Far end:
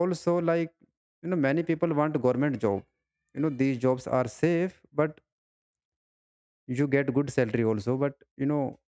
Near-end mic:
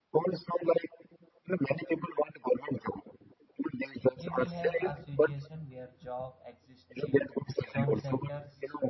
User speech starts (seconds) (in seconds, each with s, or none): 4.2 s